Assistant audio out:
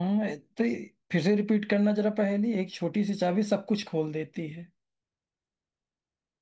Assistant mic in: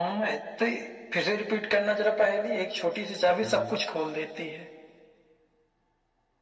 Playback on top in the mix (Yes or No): Yes